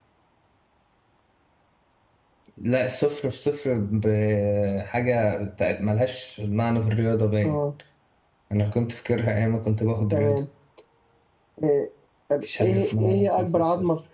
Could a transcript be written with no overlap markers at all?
No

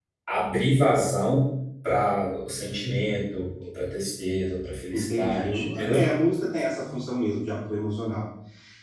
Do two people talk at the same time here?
Yes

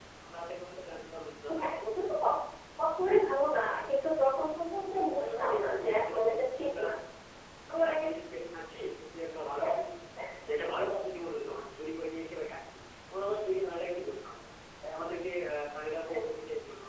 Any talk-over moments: Yes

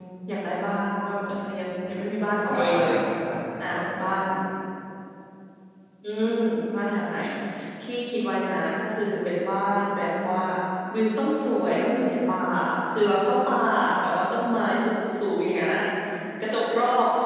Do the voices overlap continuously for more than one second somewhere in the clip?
No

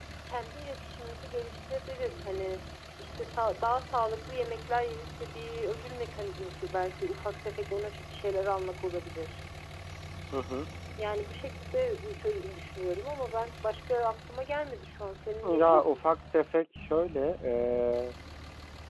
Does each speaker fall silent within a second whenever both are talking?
Yes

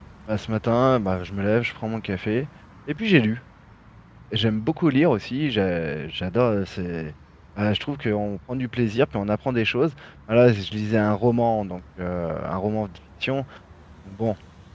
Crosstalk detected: No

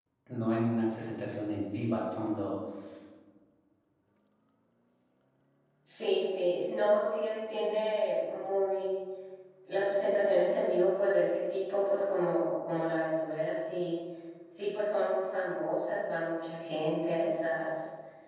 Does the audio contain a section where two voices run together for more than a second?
No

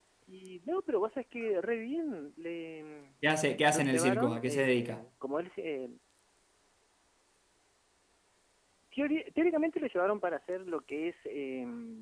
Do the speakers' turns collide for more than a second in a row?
Yes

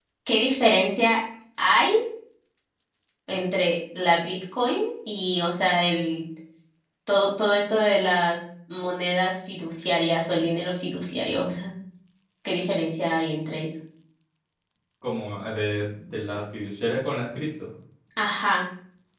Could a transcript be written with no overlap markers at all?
Yes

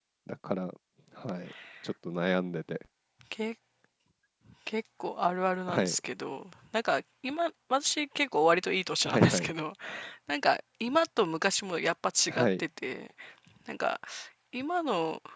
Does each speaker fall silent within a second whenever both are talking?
Yes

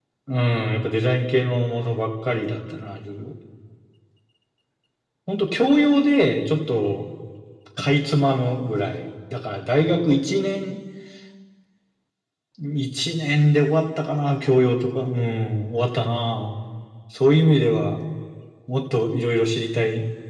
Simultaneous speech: No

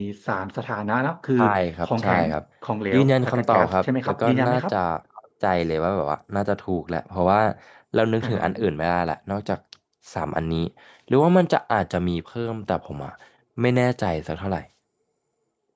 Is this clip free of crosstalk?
No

